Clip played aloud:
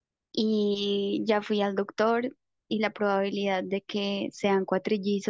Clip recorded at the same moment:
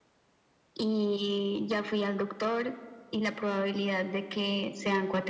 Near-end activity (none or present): none